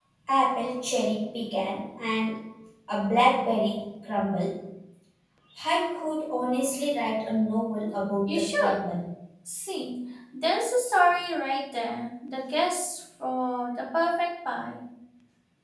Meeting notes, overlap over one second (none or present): none